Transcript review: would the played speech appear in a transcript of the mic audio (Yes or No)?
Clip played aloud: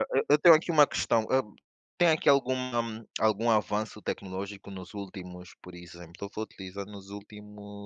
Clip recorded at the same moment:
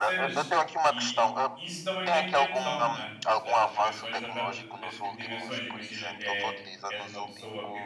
Yes